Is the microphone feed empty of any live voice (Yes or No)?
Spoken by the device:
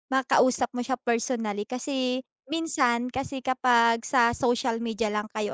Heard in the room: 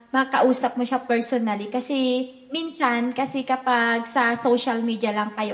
Yes